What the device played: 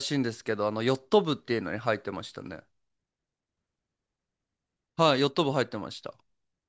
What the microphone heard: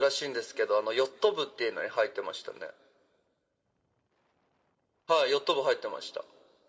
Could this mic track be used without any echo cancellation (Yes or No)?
No